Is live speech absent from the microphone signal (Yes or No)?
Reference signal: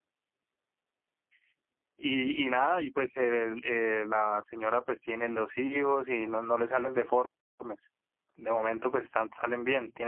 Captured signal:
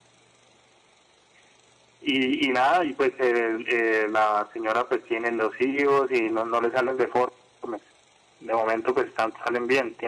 Yes